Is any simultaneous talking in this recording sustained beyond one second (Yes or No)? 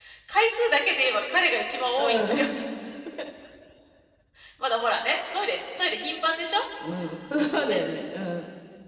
No